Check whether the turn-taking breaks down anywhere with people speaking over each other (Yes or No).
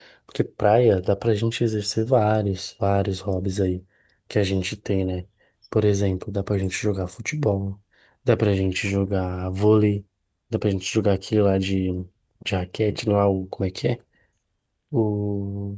No